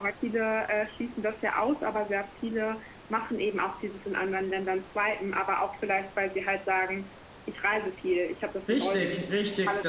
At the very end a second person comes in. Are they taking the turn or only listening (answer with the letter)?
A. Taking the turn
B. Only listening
A